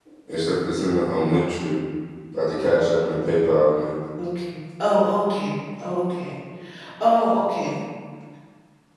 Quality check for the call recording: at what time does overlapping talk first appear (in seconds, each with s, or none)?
none